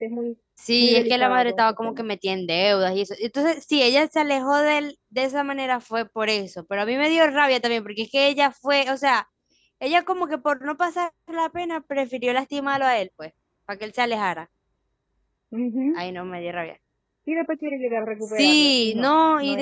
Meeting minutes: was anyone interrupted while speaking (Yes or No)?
Yes